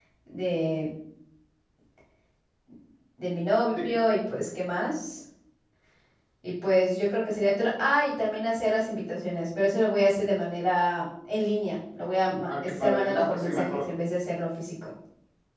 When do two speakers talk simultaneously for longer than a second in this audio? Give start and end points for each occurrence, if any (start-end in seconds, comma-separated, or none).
12.5-13.8